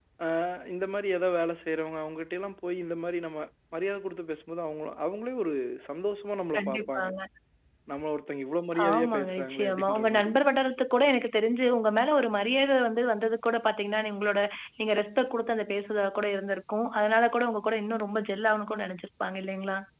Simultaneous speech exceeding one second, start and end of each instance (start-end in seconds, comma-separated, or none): 8.9-10.3